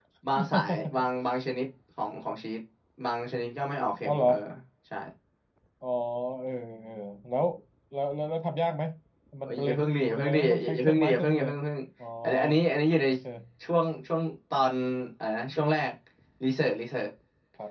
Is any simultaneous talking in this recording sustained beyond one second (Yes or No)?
Yes